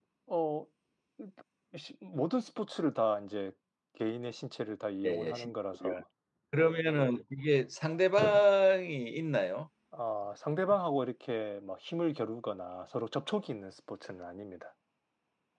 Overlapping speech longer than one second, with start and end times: none

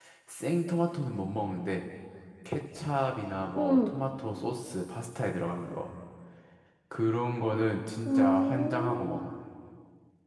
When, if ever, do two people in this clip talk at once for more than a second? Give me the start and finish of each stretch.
8.1-9.2

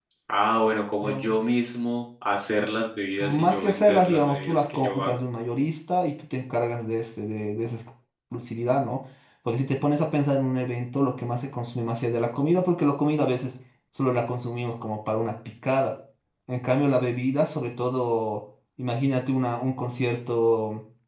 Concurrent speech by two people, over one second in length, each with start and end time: 3.2-5.1

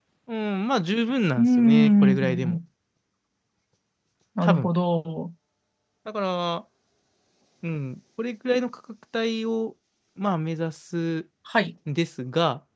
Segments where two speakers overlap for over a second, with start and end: 1.4-2.6

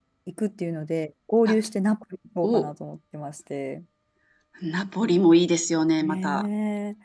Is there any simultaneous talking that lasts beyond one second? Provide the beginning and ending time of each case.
none

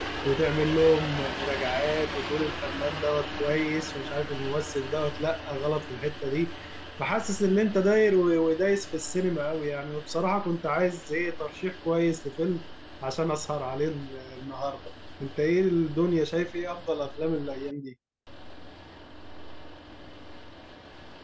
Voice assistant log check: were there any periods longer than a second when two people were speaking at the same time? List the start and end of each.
none

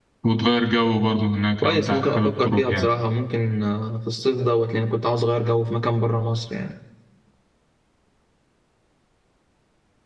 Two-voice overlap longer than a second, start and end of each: 1.6-2.9

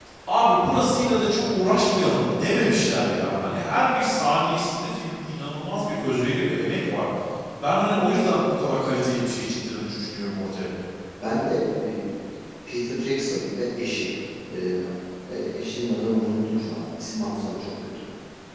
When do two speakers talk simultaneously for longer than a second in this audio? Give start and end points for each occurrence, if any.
none

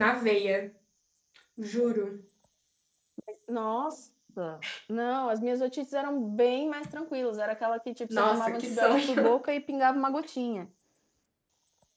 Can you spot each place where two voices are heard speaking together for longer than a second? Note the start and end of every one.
8.1-9.3

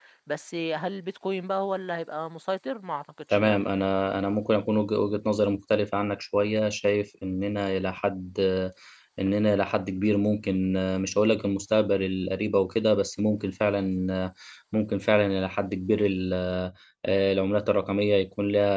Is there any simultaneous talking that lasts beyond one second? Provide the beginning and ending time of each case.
none

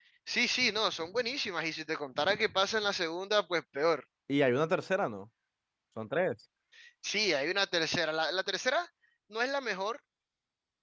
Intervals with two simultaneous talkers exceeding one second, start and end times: none

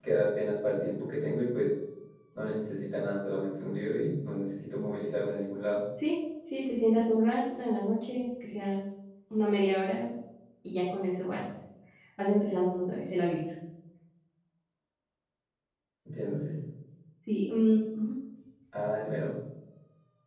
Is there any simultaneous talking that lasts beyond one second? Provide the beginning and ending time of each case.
none

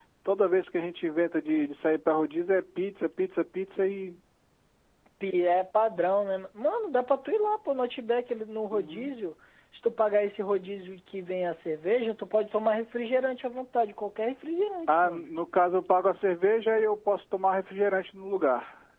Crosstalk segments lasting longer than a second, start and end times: none

